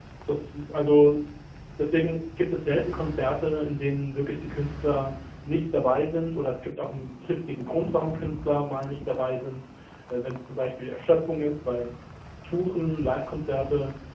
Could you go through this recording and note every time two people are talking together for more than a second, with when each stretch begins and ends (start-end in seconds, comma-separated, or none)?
none